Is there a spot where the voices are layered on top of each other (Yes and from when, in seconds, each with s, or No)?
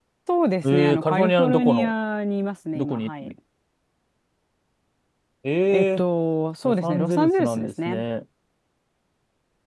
Yes, from 0.6 s